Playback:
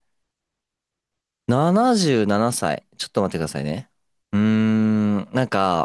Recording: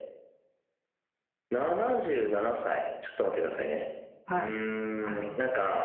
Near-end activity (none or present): present